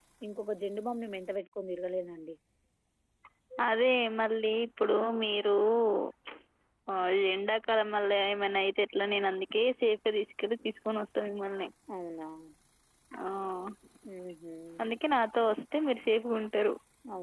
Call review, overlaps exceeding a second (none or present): none